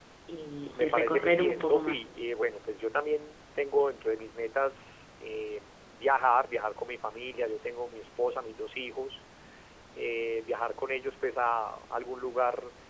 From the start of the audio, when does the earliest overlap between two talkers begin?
0.8 s

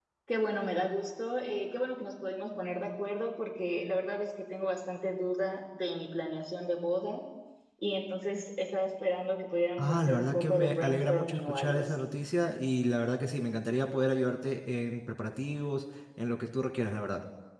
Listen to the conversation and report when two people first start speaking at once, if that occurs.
9.8 s

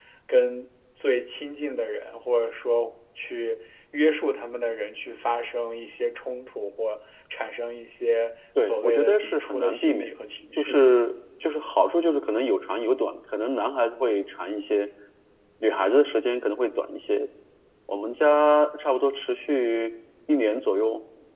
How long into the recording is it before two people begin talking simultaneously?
8.6 s

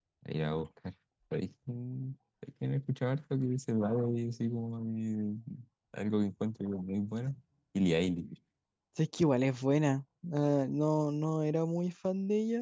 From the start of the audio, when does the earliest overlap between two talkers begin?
none

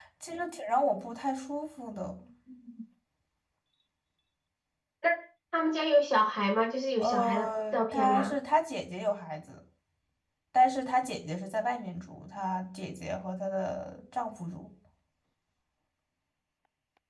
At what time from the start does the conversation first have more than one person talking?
7.0 s

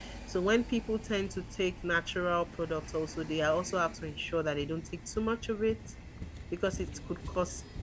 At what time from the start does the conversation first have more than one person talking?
none

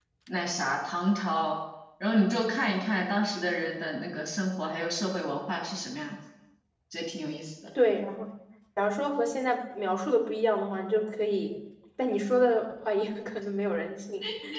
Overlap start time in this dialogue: none

